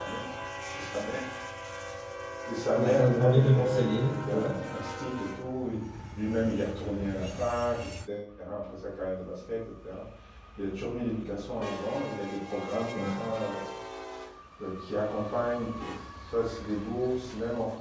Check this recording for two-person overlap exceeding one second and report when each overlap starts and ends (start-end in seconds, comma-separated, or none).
2.7-4.5